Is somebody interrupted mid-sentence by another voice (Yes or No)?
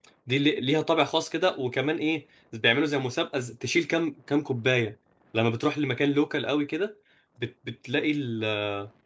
No